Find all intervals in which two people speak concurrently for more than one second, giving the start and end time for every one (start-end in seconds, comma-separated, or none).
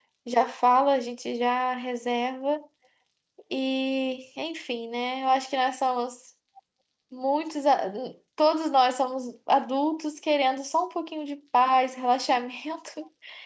none